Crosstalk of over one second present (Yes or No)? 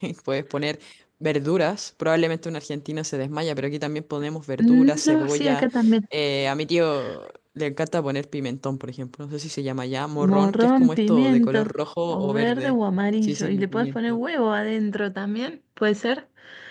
Yes